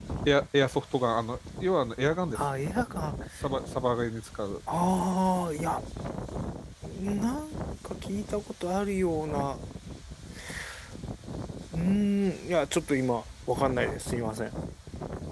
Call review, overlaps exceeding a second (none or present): none